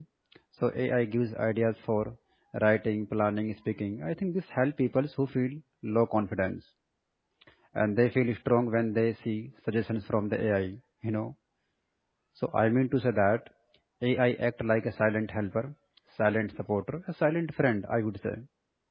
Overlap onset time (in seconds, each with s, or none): none